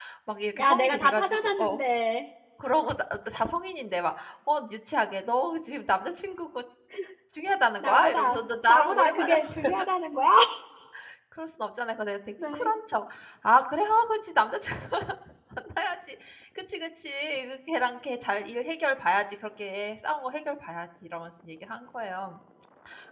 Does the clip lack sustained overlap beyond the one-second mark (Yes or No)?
No